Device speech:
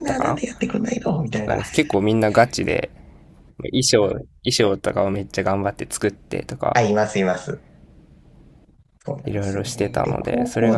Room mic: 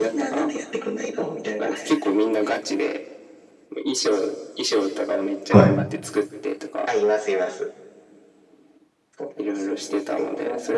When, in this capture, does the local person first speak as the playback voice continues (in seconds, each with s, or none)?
5.5 s